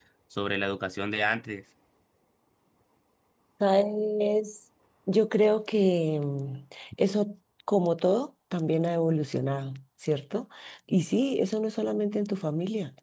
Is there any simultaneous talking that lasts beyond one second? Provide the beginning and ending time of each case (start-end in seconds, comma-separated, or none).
none